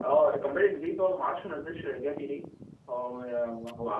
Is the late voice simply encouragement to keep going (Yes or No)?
No